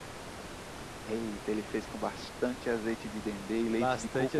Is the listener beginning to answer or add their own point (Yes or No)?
Yes